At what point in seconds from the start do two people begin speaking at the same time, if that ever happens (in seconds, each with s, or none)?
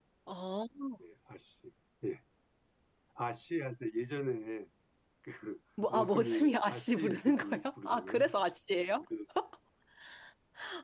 5.9 s